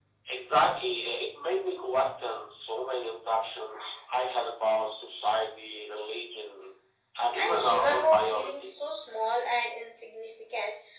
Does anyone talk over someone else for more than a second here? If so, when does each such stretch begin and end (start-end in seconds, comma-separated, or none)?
7.4-8.7